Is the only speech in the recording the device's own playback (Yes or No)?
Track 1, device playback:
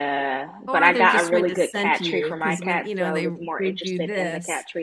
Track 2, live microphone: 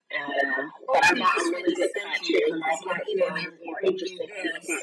Yes